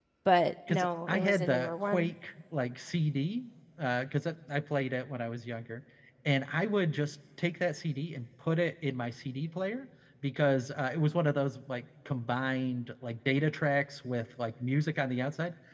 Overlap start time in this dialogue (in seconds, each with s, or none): 0.7 s